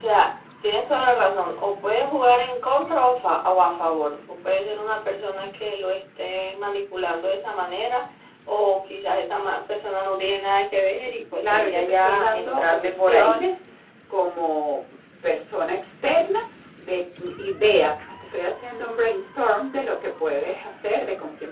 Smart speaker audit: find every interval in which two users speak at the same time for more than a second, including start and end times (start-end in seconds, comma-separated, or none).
11.4-13.4